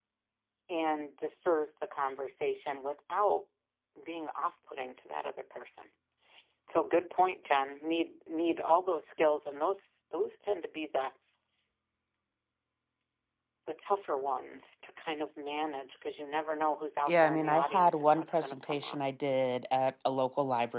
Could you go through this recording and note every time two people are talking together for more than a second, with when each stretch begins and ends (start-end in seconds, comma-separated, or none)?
17.1-19.0